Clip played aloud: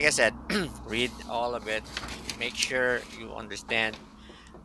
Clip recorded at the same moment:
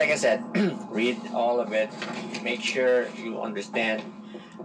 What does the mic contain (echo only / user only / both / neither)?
echo only